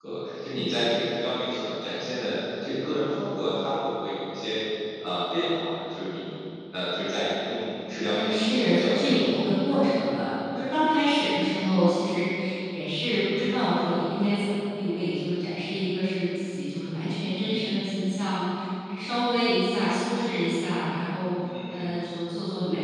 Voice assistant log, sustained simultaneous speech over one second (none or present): present